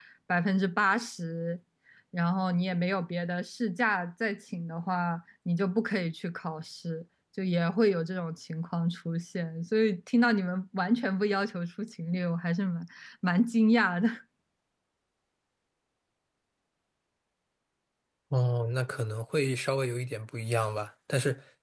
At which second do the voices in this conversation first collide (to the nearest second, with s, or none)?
none